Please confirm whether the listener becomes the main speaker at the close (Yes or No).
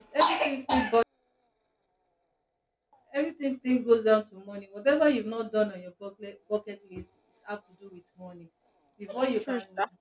No